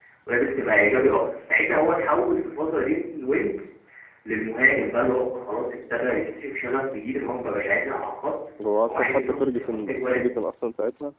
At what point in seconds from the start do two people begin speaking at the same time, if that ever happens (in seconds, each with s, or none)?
8.9 s